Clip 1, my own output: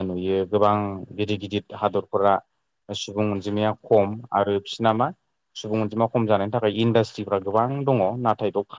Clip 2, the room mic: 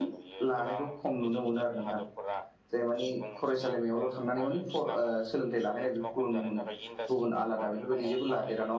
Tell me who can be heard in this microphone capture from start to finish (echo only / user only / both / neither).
both